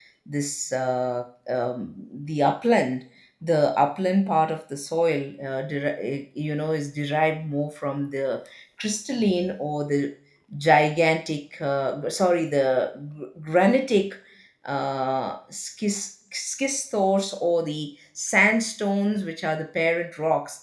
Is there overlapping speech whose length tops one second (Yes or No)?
No